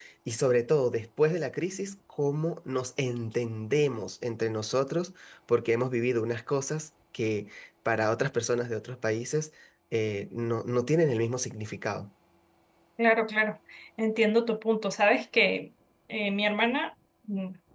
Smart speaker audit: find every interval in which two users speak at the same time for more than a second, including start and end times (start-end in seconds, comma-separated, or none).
none